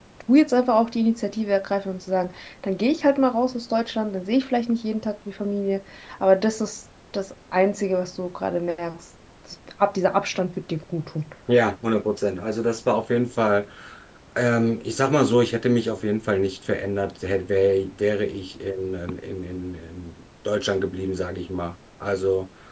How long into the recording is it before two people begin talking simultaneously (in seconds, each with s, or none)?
none